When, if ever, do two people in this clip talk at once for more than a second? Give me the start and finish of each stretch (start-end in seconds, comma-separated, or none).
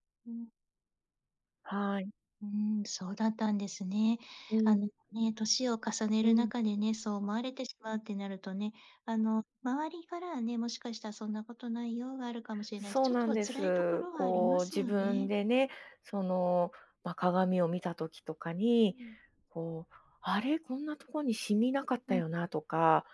12.9-15.3